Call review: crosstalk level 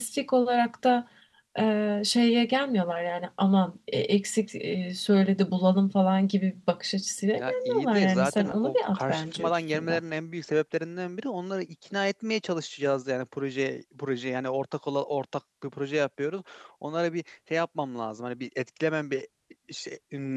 present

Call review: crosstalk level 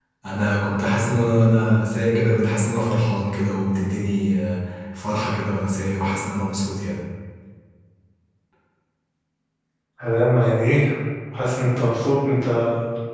none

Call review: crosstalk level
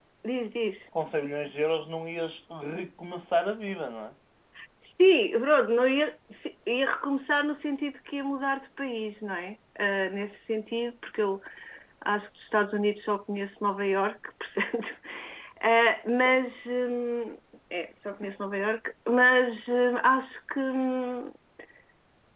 none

